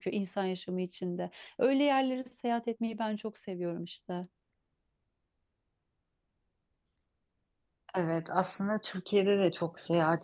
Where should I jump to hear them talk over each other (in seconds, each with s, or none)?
none